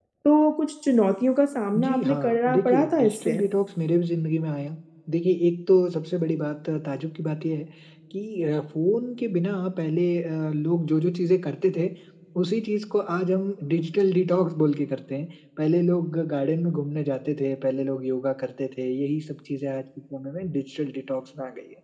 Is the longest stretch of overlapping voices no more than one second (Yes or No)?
No